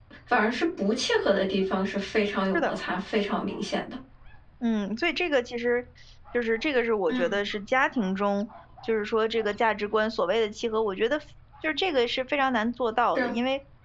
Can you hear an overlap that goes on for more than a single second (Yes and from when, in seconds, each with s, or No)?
No